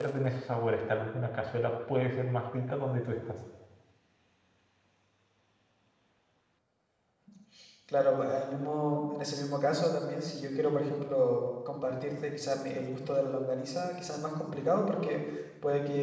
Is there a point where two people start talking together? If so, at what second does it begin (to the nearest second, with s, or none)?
none